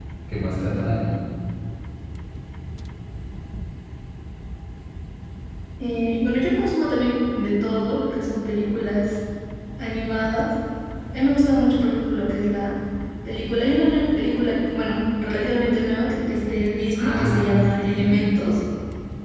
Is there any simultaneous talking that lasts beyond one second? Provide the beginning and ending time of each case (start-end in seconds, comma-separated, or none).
17.0-18.2